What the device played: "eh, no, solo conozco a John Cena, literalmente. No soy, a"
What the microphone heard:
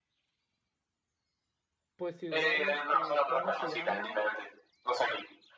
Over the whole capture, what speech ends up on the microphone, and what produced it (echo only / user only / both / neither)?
both